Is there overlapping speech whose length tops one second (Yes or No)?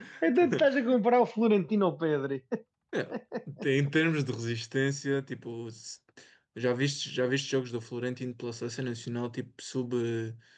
No